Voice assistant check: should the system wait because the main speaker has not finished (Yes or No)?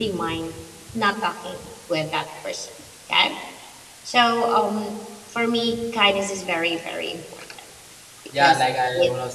No